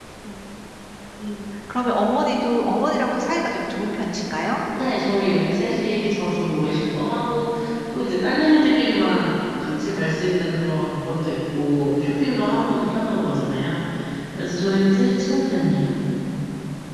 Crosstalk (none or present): none